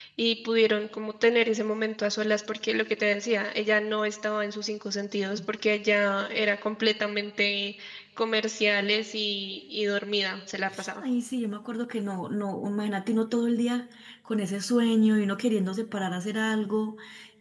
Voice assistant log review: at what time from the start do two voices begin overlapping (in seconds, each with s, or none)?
none